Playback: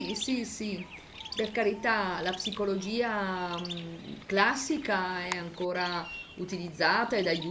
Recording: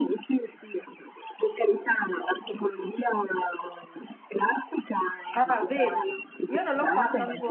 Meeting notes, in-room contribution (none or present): present